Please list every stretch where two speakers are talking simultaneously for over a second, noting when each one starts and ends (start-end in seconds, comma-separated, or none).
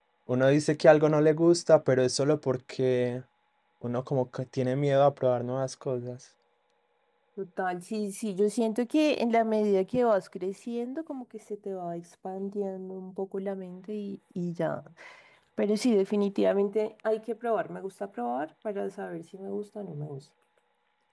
none